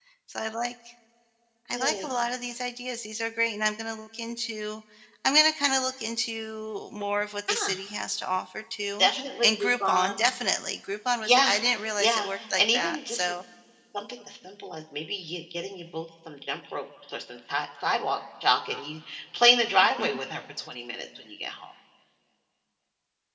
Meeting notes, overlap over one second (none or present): present